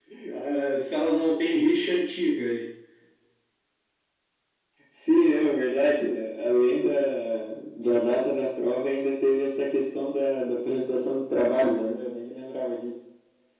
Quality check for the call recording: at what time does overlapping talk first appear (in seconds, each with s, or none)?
none